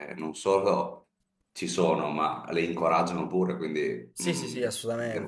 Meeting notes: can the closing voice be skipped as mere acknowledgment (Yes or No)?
No